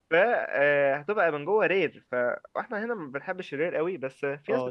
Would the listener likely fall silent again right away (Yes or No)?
No